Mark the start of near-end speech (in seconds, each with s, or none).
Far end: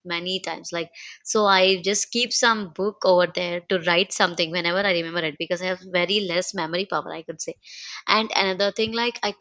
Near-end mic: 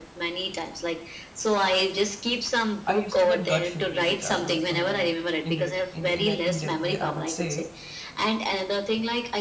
2.9 s